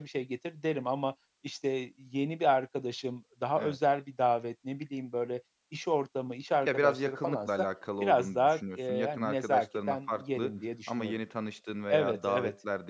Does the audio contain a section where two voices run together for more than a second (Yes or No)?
Yes